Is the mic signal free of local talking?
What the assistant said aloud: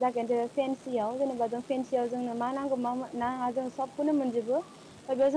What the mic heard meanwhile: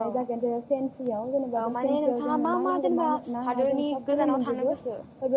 No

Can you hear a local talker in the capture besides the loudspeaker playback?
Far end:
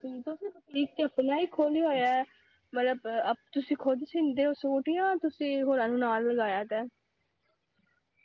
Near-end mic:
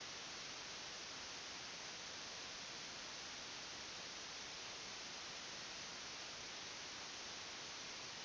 No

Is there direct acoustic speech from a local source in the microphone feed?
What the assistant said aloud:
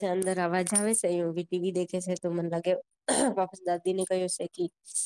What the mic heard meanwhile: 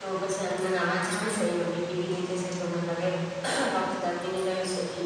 No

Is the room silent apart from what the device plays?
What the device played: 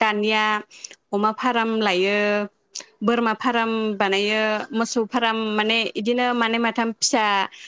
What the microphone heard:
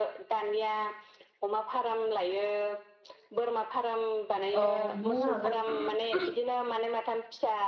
No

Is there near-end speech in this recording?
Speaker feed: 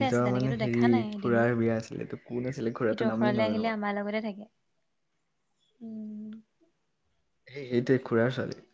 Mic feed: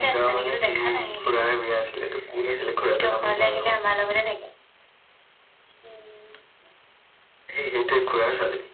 No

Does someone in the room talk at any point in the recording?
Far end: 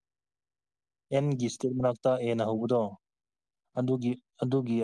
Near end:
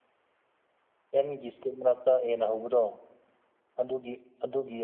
No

